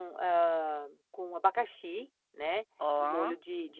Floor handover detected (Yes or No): No